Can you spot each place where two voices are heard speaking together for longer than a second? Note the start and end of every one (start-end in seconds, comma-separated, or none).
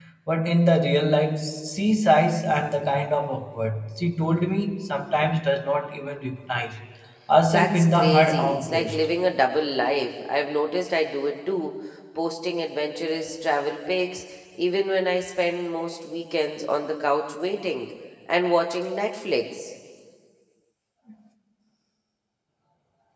7.5-9.1